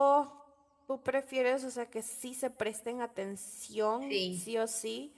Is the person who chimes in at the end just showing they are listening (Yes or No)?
Yes